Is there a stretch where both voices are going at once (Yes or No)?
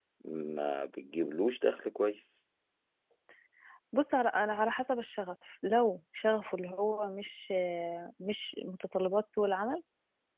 No